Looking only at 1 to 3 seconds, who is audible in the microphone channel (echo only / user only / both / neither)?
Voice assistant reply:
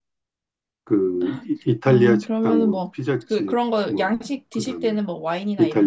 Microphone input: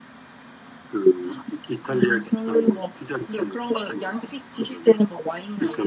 echo only